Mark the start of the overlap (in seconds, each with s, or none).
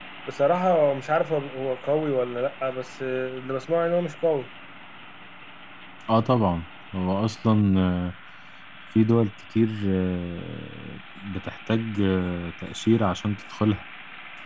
none